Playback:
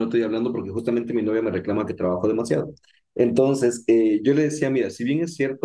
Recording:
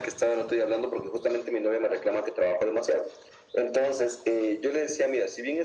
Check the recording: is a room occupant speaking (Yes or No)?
No